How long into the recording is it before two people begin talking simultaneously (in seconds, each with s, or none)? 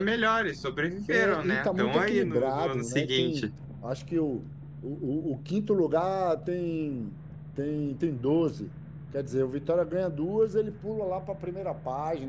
1.1 s